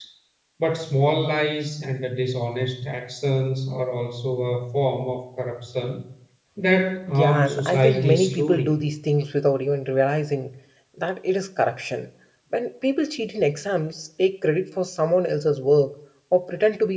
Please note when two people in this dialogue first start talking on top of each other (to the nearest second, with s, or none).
7 s